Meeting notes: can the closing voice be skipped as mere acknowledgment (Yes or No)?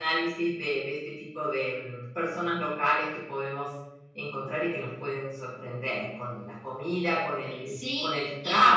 Yes